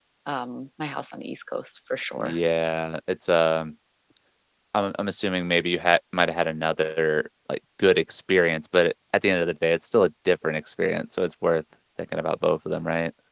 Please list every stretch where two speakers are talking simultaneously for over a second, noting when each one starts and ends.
none

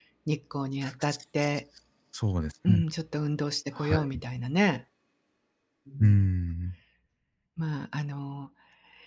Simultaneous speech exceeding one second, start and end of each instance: none

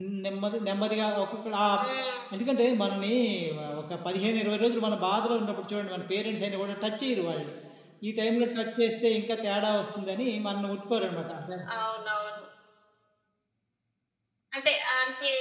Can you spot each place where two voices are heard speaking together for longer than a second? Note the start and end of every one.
none

